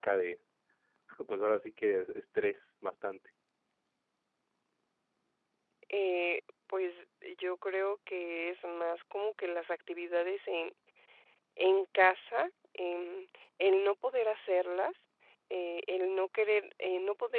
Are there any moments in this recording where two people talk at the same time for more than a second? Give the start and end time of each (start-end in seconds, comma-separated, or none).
none